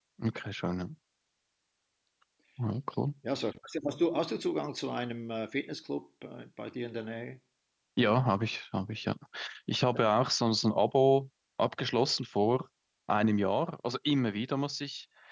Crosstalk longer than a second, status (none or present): none